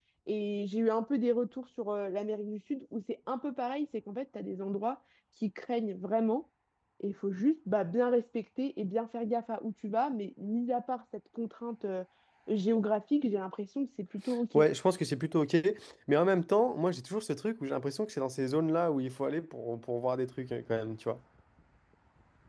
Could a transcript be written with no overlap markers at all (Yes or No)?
Yes